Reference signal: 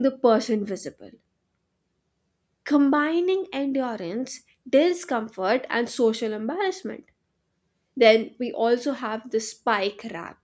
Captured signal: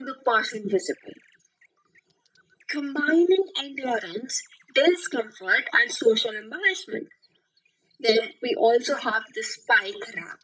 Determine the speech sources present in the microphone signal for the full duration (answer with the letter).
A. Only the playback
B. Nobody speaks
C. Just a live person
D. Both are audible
A